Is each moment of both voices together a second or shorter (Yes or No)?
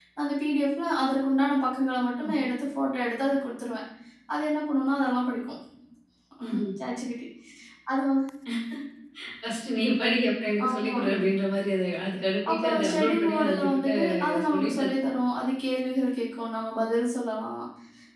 No